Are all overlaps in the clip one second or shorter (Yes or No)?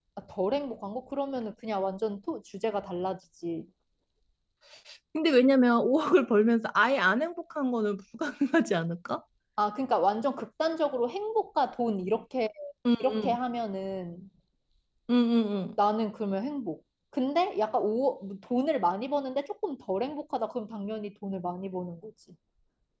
Yes